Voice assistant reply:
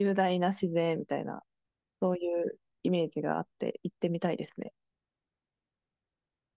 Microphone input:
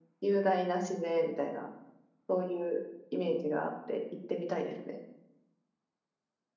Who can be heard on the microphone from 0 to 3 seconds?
echo only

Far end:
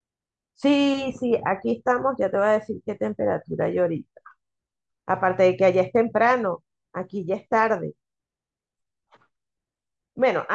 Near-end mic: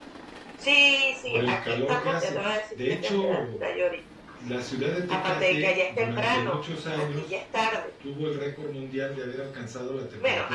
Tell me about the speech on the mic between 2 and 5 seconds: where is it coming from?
both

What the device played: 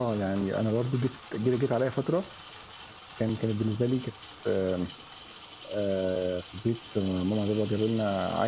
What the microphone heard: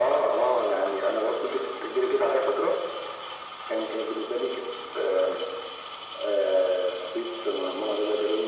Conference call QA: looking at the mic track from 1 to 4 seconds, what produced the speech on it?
echo only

